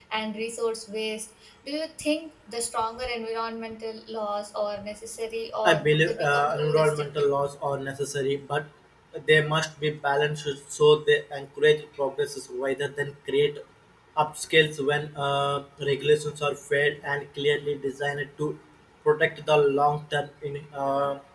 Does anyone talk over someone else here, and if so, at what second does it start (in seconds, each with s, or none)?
5.6 s